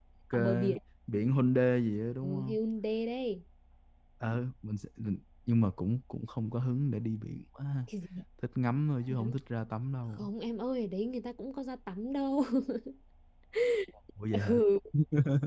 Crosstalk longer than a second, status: none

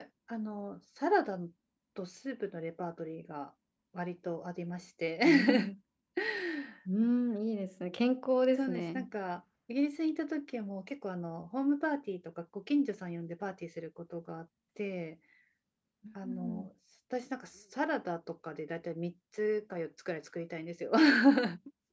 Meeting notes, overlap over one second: none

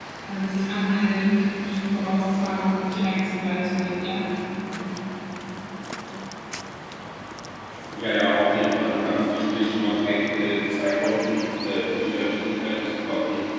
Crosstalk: none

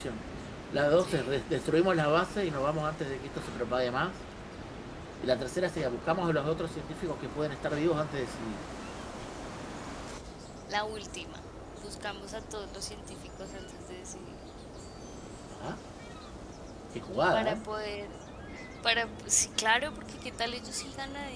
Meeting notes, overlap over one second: none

